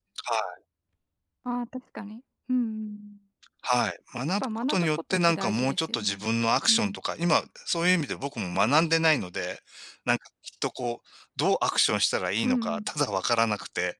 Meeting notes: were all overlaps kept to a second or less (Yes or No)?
No